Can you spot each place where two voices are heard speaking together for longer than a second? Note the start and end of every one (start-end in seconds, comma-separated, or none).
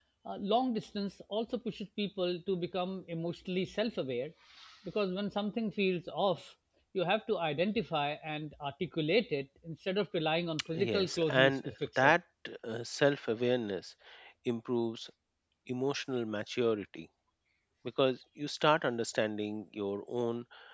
10.7-12.1